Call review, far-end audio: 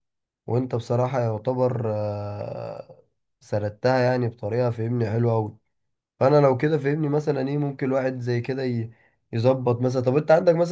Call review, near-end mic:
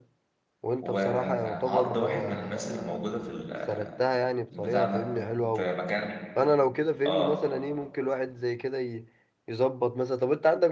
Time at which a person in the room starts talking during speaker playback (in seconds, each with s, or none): 0.8 s